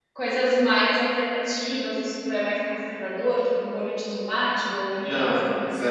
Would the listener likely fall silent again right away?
No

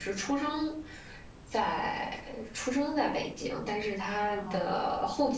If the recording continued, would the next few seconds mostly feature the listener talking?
No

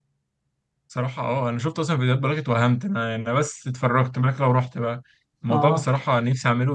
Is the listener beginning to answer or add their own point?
No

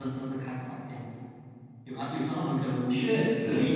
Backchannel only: Yes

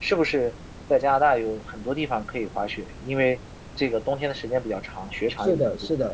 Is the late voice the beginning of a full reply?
Yes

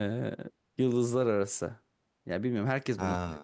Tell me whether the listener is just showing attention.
Yes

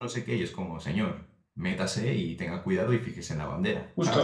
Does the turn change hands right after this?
Yes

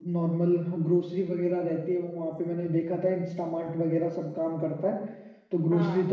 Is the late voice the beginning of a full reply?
No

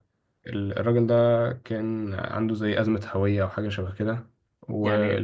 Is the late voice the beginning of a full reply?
No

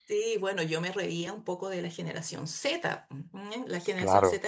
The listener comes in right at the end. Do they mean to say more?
No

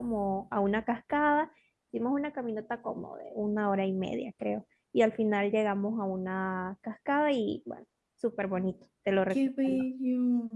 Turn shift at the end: Yes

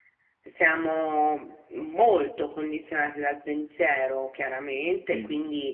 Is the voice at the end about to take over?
No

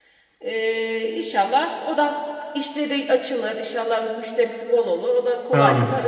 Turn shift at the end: Yes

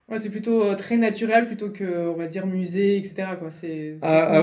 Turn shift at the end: Yes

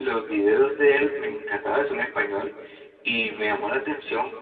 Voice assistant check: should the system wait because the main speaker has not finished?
Yes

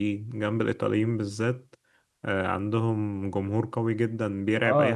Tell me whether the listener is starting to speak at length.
Yes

